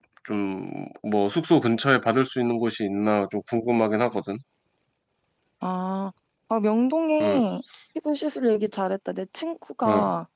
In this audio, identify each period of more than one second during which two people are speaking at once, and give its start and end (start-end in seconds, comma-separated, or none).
none